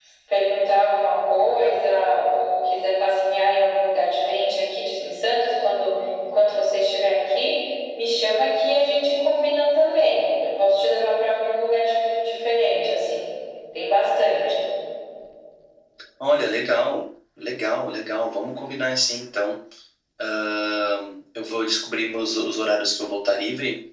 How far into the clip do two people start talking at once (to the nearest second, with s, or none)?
none